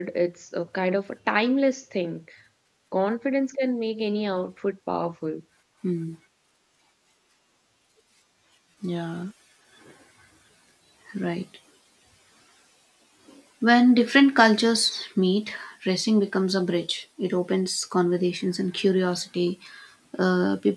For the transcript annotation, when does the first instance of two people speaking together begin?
none

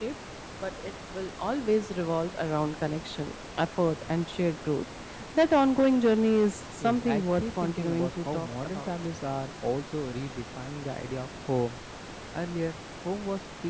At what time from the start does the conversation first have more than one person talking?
7 s

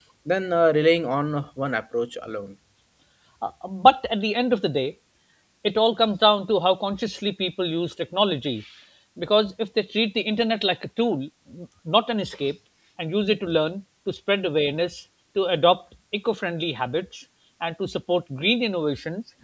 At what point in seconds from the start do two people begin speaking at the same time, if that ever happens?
none

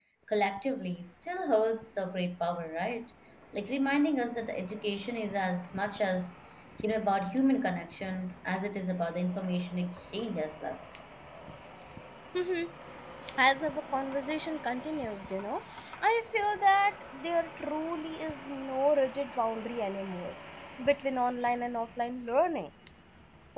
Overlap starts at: none

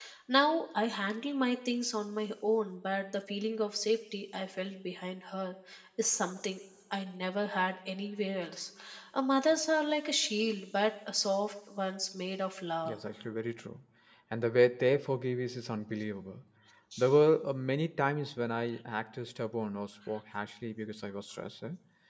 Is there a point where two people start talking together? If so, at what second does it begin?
none

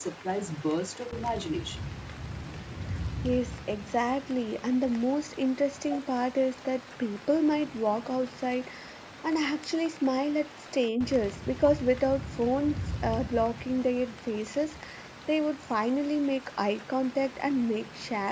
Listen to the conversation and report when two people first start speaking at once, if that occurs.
none

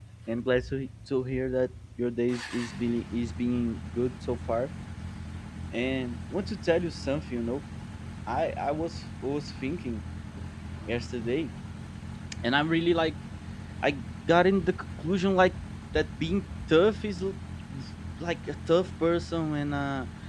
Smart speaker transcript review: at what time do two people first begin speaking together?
none

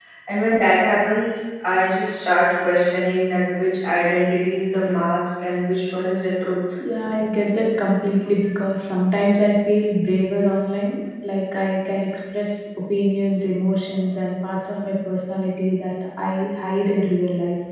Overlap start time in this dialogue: none

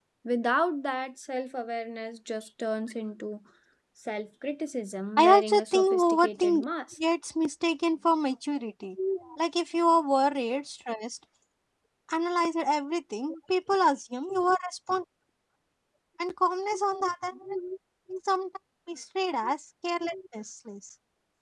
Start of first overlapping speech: 5 s

